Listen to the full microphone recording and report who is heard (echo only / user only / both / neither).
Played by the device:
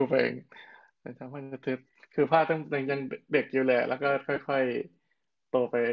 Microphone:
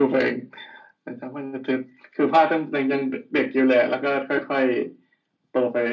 echo only